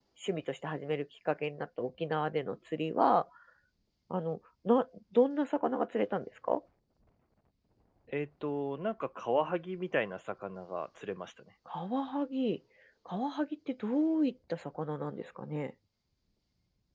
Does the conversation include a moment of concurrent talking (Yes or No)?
No